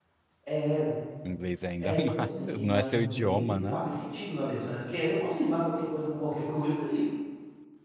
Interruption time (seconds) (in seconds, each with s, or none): 1.8 s